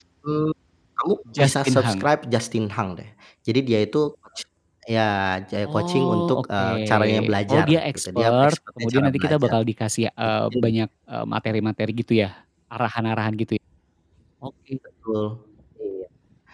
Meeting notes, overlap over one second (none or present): present